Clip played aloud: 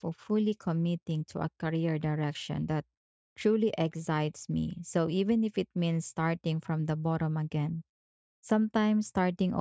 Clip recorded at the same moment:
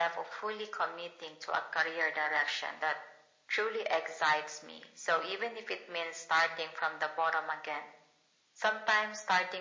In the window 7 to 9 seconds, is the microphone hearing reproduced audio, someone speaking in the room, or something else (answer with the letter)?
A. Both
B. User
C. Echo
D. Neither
C